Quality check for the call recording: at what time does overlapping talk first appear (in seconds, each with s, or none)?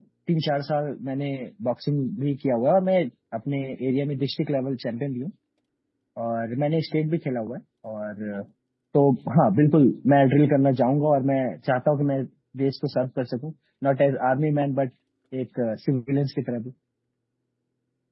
none